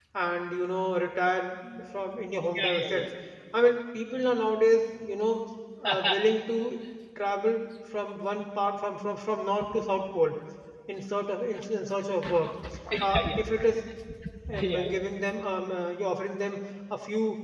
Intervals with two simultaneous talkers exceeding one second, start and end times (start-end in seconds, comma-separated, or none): none